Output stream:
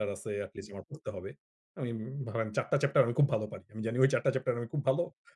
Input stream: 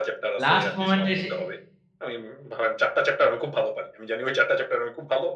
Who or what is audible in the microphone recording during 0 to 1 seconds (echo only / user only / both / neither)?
both